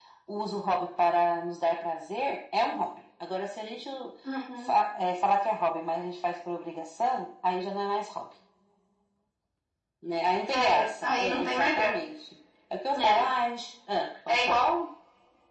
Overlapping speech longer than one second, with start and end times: 10.7-11.9

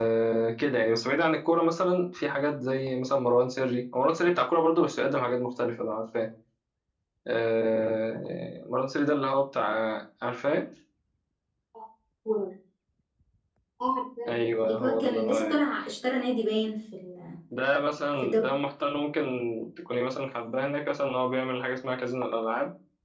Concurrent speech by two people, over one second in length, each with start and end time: 14.3-15.6

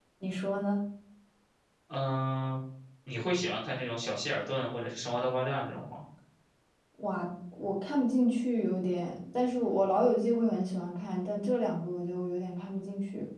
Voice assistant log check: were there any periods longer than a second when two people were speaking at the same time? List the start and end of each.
none

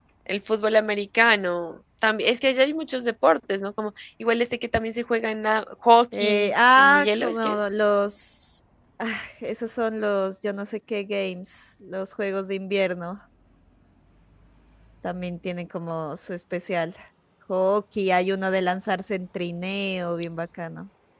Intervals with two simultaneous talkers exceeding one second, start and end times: 6.1-7.6

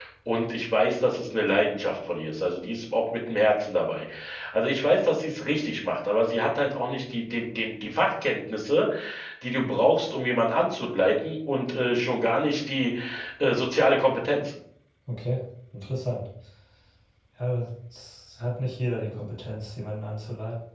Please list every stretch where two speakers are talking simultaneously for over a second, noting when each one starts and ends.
none

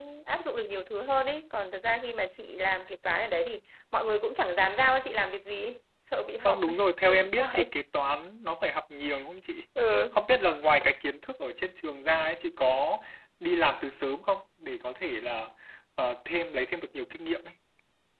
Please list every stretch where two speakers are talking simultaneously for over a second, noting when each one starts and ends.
6.4-7.7

